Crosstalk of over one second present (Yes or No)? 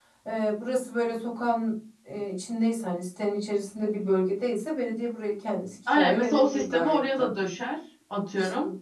Yes